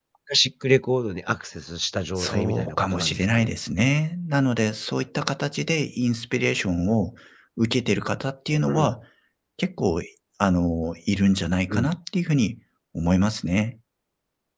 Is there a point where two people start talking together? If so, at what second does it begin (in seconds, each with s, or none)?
2.2 s